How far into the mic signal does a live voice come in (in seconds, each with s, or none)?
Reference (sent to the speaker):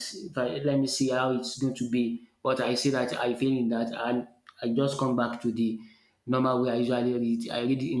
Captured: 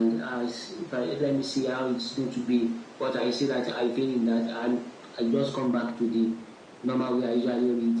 none